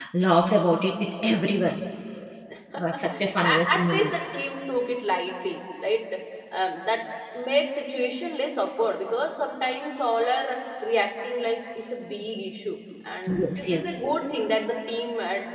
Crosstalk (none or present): present